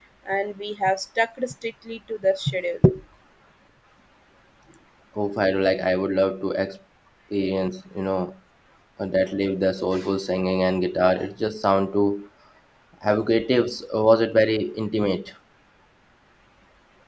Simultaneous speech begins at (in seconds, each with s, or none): none